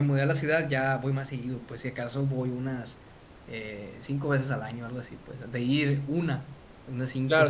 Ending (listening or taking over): taking over